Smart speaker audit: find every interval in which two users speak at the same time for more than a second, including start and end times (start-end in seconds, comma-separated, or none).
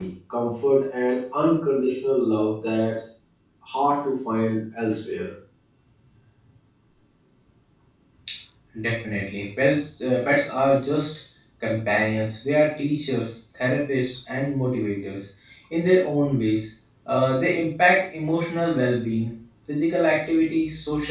none